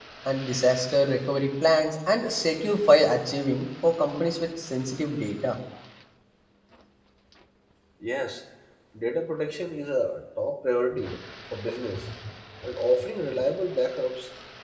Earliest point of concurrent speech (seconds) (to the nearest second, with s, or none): none